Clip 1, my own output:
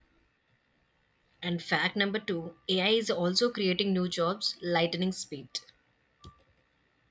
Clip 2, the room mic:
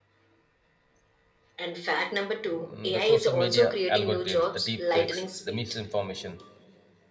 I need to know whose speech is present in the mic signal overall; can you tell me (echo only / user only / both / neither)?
both